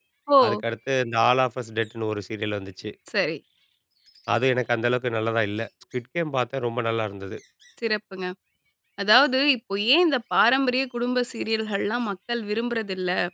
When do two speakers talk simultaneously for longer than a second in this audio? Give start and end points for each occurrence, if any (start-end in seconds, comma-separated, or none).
none